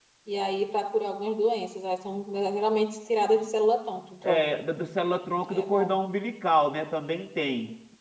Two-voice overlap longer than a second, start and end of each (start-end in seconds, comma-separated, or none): none